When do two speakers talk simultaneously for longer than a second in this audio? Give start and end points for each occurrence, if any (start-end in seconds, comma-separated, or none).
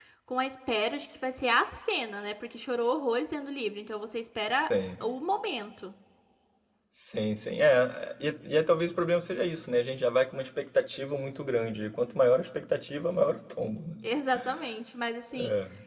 none